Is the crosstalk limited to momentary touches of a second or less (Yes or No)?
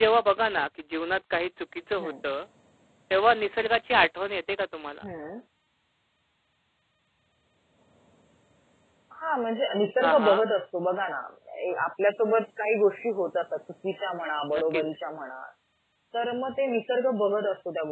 Yes